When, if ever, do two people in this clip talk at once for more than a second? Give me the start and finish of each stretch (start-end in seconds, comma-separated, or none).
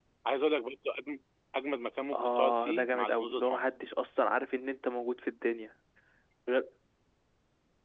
2.1-3.7